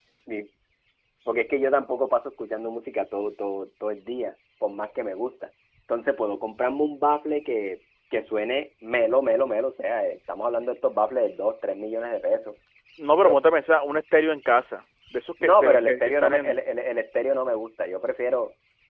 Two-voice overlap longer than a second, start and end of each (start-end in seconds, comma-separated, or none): 15.4-16.6